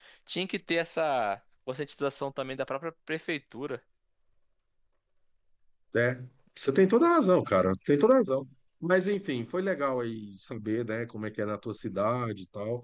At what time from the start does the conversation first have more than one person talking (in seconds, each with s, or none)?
none